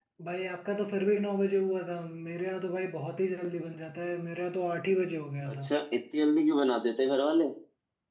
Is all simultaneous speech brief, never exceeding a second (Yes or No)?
Yes